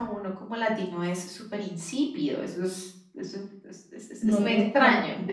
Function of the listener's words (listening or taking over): taking over